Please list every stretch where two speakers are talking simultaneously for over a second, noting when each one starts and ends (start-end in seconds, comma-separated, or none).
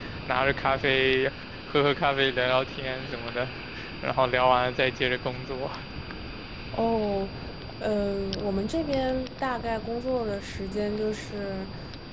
none